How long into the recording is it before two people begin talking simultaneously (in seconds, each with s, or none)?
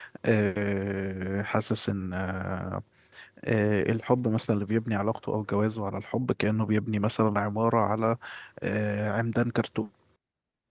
none